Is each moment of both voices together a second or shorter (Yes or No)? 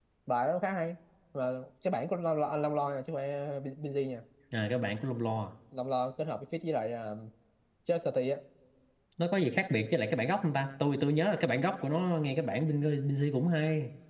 Yes